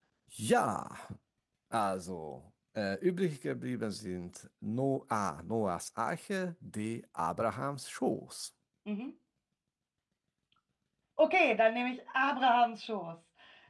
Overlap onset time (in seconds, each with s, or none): none